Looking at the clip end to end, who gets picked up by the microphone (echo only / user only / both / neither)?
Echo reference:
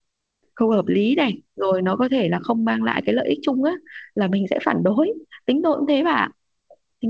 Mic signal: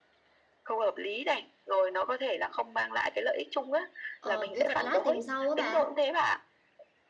both